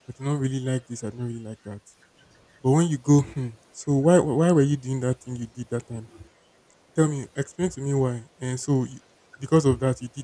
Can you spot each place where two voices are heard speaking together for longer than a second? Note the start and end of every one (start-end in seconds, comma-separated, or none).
none